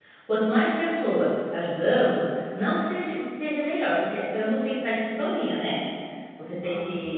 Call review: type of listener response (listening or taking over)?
listening